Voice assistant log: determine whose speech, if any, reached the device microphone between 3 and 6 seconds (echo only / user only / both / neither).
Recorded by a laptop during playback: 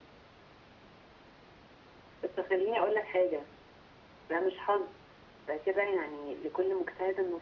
echo only